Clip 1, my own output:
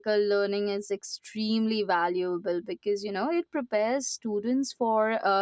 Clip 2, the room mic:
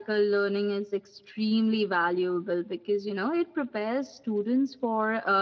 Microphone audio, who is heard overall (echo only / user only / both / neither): echo only